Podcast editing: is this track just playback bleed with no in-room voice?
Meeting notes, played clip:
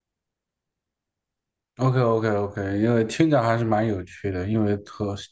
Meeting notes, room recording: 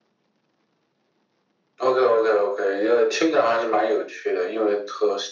Yes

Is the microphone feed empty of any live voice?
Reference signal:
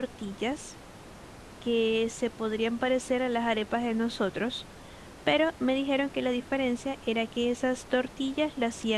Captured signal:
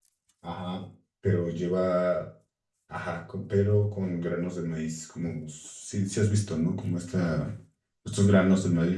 No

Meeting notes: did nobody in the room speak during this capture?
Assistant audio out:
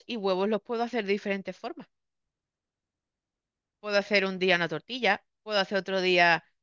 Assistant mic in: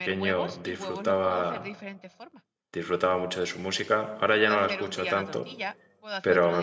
No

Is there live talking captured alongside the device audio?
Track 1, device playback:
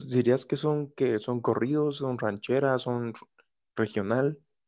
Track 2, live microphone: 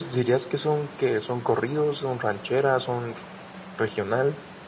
No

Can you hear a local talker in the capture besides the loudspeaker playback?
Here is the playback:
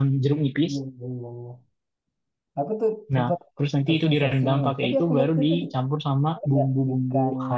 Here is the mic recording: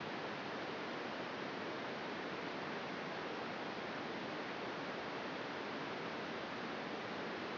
No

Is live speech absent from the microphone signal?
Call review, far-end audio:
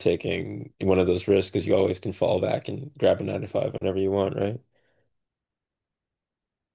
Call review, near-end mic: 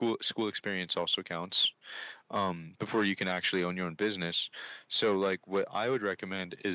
No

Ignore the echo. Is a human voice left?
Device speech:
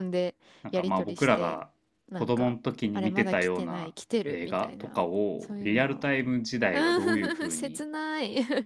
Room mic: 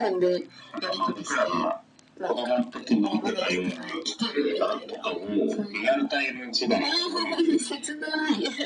No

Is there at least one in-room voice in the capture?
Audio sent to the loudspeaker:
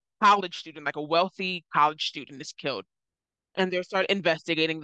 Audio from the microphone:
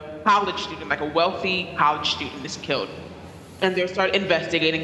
No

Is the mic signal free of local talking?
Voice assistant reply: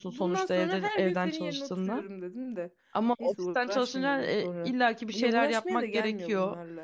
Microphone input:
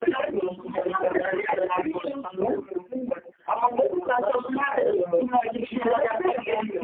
Yes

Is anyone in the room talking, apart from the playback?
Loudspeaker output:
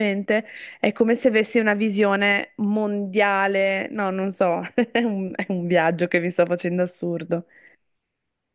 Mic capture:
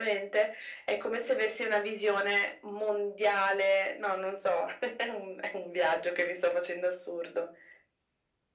No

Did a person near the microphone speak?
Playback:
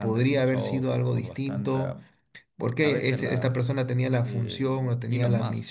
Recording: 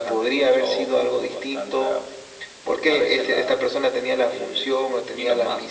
No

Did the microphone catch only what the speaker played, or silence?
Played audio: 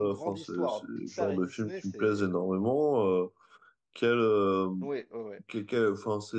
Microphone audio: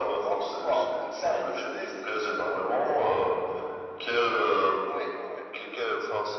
Yes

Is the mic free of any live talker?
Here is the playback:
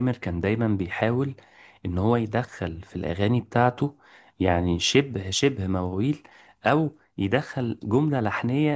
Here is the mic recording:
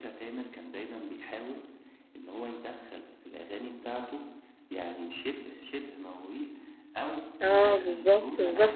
No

